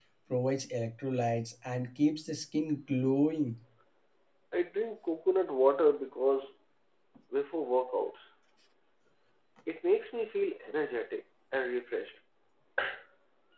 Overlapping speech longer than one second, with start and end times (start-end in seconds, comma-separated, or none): none